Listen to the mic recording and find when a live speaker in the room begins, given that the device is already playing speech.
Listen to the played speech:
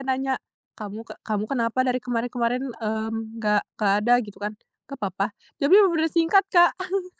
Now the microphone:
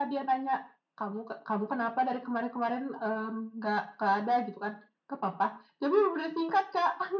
none

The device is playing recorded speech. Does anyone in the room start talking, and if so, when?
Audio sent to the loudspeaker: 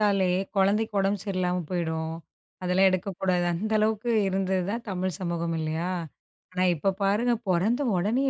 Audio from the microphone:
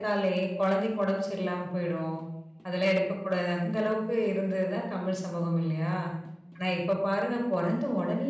none

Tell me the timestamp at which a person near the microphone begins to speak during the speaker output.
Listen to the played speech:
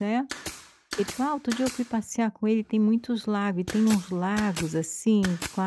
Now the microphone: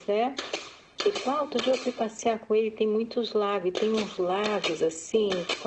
none

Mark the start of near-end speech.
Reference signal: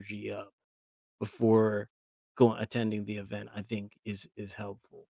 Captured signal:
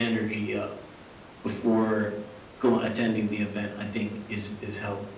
none

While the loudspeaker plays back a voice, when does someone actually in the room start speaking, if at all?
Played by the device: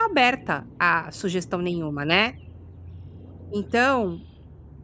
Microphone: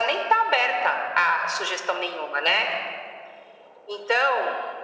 none

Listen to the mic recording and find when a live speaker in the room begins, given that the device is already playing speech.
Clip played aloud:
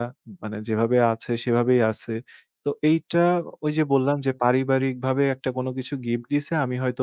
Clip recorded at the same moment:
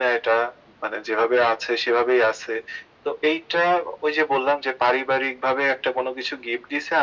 none

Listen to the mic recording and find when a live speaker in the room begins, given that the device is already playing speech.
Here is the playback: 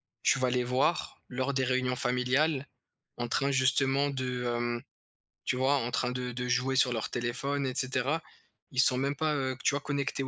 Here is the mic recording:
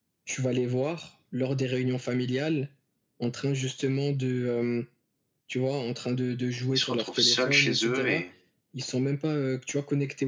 6.7 s

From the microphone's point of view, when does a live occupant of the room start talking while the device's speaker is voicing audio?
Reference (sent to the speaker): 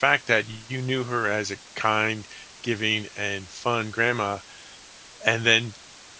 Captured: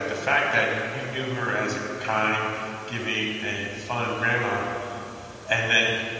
none

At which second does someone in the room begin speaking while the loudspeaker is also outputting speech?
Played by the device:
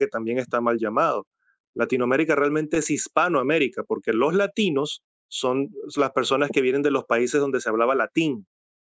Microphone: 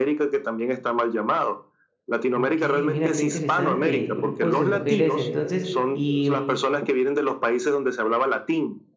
2.4 s

